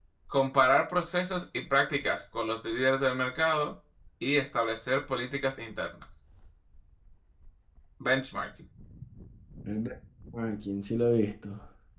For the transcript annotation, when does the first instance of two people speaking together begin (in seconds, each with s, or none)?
none